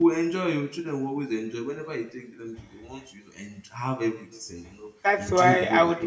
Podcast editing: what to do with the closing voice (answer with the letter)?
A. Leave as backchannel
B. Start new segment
B